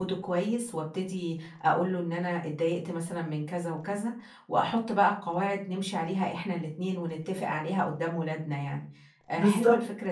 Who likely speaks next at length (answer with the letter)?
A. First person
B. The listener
A